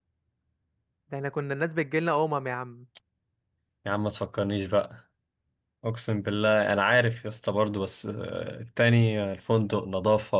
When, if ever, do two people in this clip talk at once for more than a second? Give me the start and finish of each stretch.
none

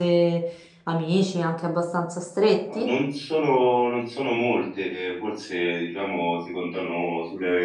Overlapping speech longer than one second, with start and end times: none

